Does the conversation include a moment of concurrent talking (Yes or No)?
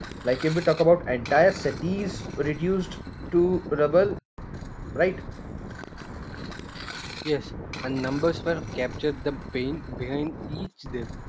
No